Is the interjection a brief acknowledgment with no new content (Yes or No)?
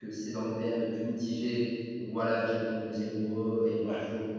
Yes